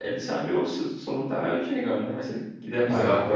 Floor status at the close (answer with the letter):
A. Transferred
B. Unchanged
A